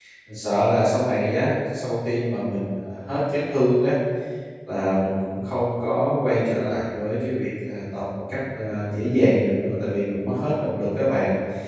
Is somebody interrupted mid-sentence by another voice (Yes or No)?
No